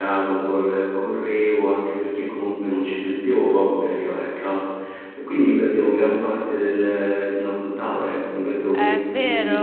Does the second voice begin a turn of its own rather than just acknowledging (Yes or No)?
Yes